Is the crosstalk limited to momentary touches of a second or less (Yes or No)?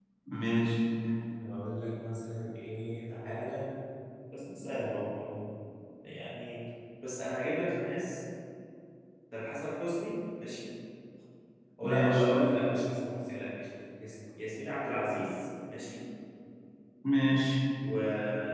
Yes